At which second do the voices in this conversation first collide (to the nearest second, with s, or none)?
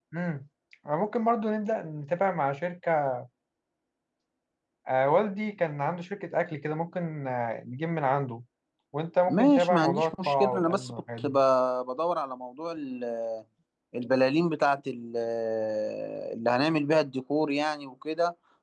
9 s